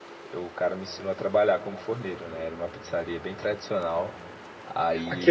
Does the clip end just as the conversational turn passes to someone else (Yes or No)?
Yes